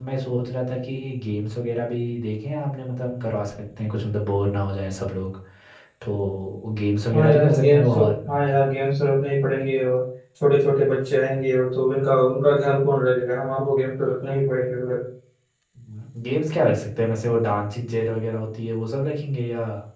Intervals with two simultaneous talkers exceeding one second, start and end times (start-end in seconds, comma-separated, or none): 7.1-8.6